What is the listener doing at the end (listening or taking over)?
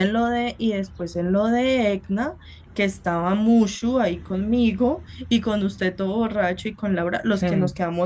listening